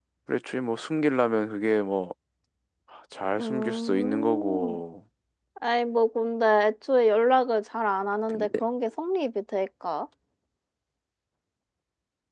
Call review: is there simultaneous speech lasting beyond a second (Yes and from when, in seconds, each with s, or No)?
Yes, from 3.4 s